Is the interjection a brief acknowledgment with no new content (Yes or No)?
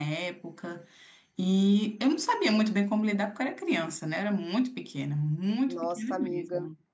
No